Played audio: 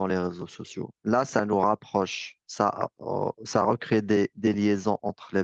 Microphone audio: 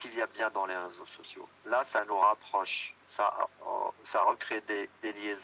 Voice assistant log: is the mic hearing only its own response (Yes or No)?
Yes